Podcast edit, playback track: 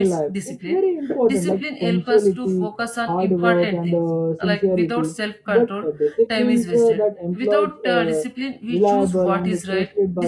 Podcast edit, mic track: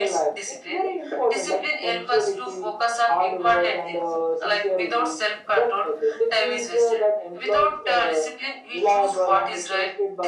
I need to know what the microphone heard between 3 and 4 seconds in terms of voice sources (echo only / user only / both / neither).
echo only